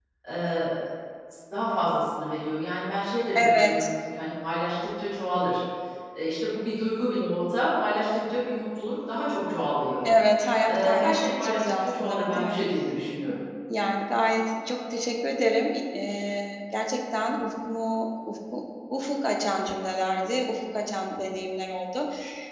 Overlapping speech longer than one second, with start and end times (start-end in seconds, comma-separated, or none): 10.7-12.6